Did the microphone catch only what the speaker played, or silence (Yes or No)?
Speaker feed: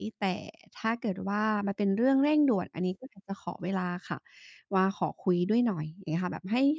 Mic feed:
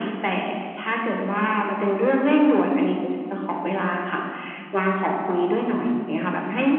Yes